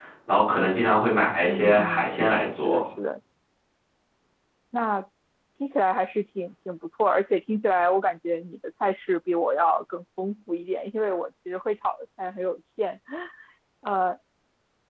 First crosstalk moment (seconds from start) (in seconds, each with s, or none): 1.5 s